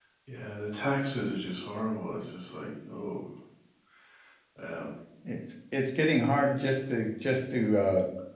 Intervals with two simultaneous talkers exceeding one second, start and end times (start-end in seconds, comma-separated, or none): none